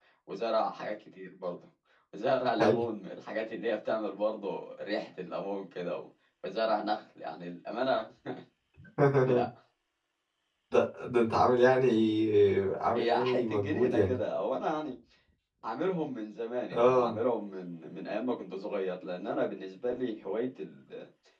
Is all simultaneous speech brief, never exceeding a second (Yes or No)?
No